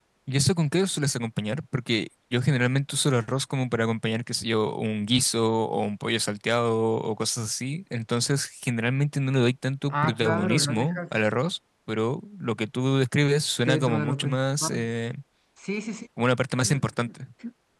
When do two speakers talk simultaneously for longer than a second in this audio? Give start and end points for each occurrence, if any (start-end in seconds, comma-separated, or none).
9.9-11.1, 13.7-14.9